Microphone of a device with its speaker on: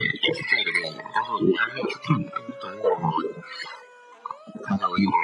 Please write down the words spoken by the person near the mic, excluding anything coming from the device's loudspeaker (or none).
none